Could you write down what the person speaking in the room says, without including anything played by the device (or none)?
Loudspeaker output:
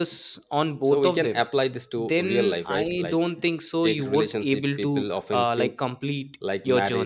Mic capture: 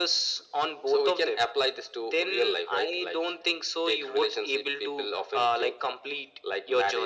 none